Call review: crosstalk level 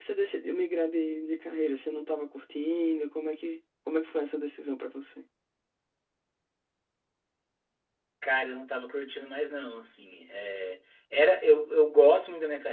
none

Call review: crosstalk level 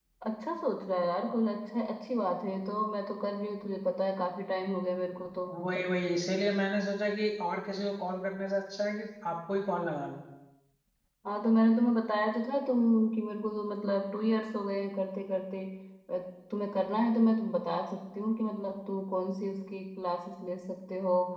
none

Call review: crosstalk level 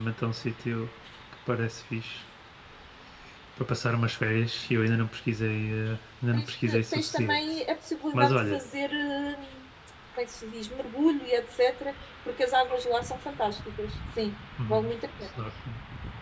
present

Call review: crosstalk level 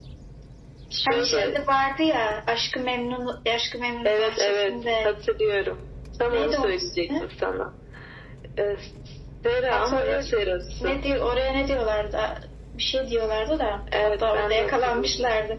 present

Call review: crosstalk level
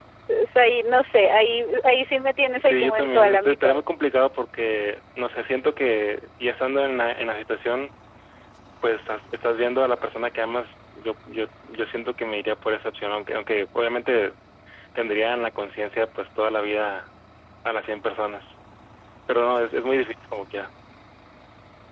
present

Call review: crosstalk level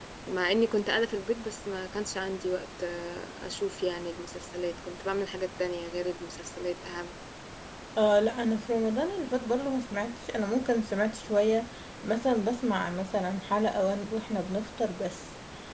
none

